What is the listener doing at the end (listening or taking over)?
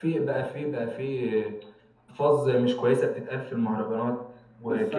taking over